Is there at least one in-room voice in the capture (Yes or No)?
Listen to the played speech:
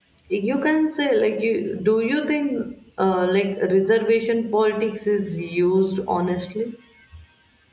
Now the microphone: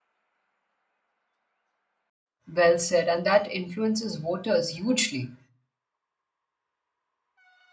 Yes